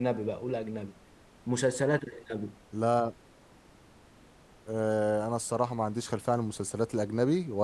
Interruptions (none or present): none